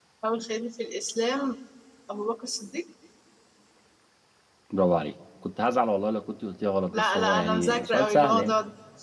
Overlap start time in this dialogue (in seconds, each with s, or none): 6.9 s